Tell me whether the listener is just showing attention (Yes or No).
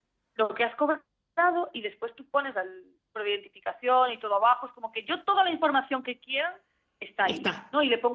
Yes